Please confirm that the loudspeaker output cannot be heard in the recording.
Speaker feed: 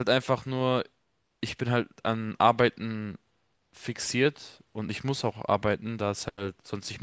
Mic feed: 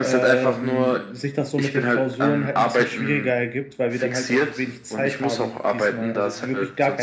No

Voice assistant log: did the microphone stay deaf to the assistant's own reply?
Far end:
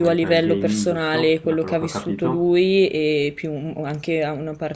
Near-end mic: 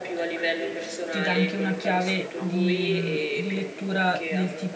No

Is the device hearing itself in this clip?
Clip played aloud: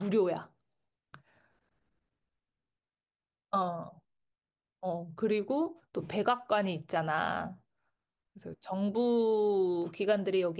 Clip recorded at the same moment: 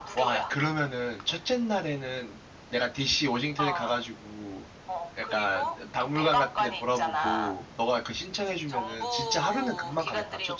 Yes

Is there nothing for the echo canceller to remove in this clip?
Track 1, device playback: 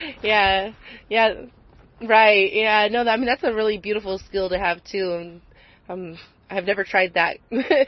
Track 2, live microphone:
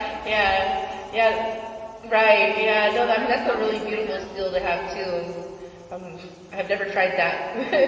No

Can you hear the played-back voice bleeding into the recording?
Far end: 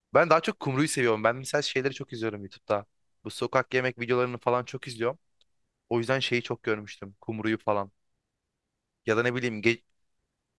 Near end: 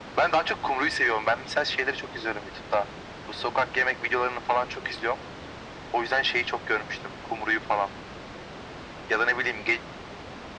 Yes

